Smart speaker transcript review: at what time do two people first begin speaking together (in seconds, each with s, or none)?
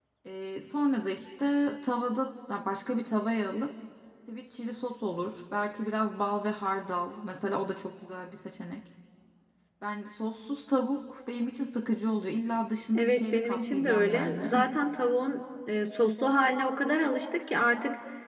12.9 s